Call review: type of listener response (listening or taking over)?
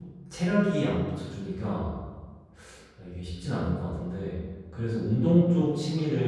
listening